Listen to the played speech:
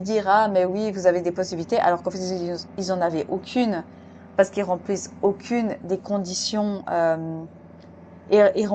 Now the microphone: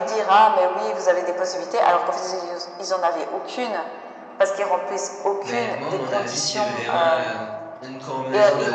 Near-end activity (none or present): present